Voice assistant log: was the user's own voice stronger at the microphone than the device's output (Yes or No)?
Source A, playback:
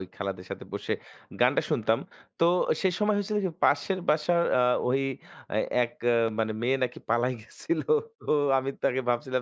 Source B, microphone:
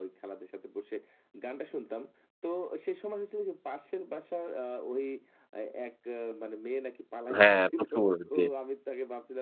Yes